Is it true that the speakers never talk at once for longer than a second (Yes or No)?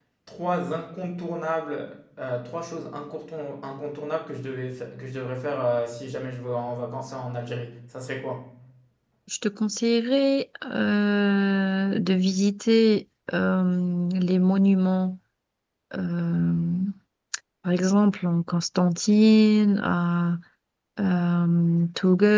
Yes